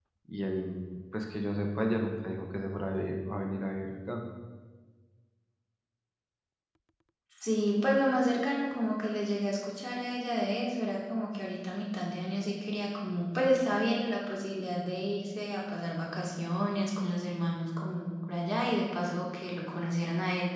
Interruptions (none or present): none